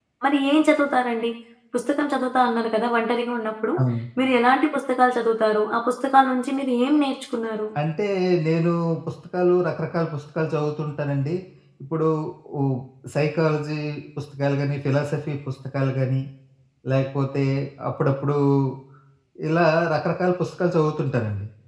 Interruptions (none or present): none